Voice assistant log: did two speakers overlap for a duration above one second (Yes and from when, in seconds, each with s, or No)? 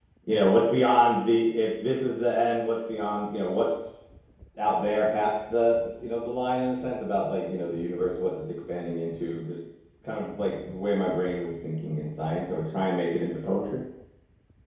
No